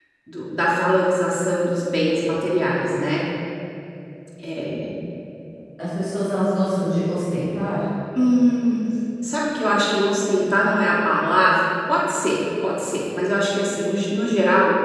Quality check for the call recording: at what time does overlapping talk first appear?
none

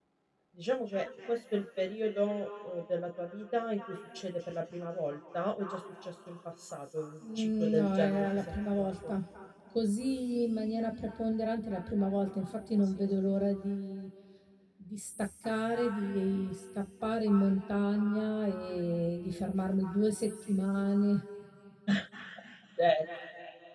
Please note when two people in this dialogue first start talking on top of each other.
7.3 s

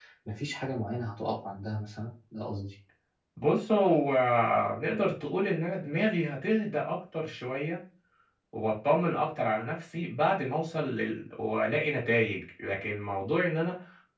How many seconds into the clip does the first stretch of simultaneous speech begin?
none

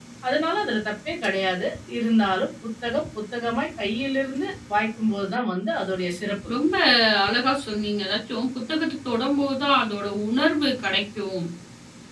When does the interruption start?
none

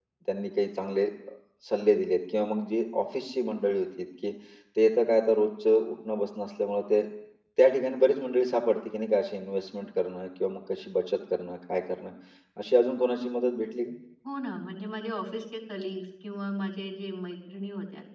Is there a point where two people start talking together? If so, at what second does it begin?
none

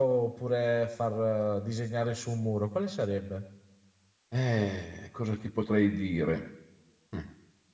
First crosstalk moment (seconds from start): none

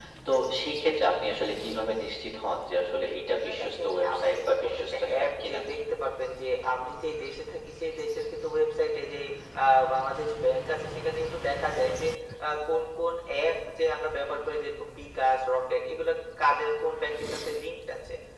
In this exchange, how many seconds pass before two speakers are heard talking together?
3.4 s

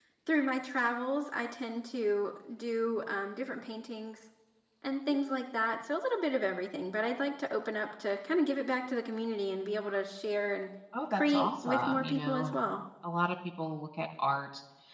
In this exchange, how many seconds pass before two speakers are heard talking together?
10.9 s

